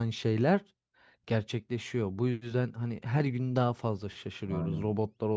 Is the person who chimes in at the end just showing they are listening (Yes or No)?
Yes